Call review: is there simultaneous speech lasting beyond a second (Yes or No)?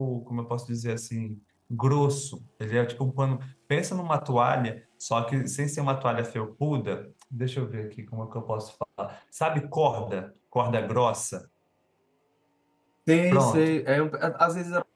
No